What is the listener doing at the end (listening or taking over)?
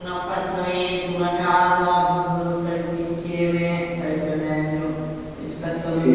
taking over